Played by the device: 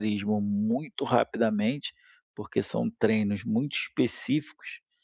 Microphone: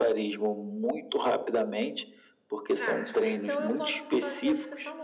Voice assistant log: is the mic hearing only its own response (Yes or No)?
No